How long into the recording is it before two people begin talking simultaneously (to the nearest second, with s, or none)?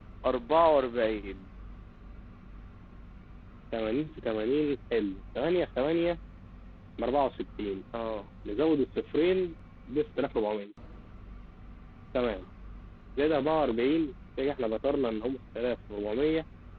none